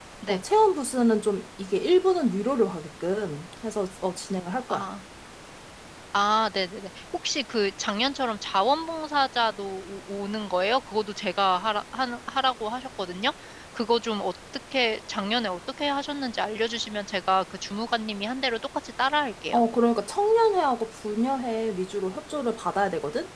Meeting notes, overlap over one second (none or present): none